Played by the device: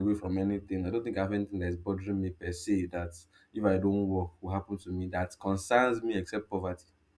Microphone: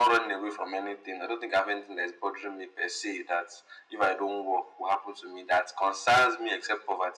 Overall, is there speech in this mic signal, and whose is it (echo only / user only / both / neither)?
echo only